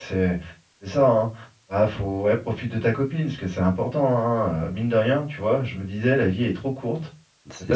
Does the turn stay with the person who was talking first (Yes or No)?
Yes